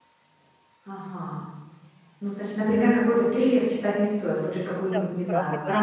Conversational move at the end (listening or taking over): taking over